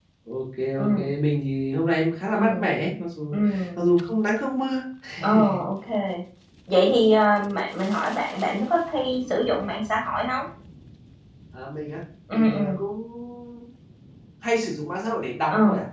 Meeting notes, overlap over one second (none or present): none